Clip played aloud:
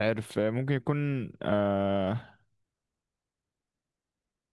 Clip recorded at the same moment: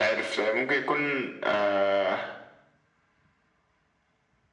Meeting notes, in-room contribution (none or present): none